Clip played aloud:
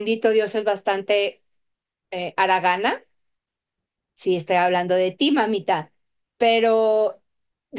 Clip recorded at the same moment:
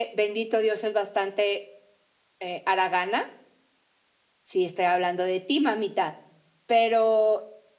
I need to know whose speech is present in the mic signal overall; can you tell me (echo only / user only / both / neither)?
echo only